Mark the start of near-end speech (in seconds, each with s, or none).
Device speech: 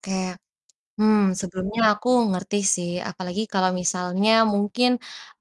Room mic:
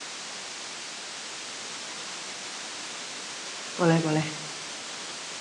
3.8 s